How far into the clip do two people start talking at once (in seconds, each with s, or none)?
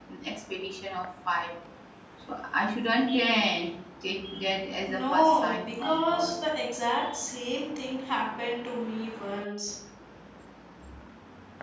4.9 s